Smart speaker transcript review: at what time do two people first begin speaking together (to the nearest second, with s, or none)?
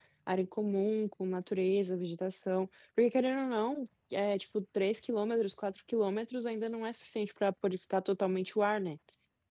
none